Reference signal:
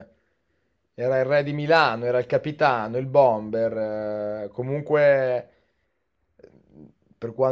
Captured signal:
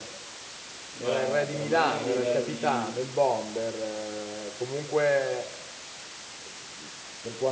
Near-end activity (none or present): present